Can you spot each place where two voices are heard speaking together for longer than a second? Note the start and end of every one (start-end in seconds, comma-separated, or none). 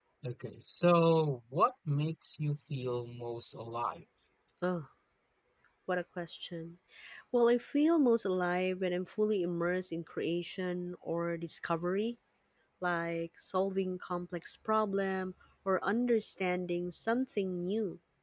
none